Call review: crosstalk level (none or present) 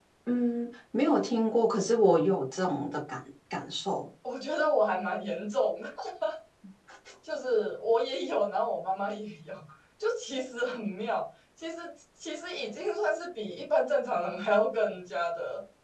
none